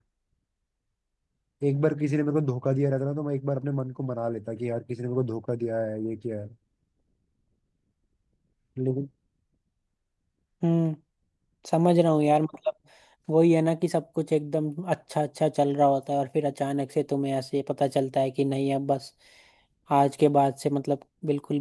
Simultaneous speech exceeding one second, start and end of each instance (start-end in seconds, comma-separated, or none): none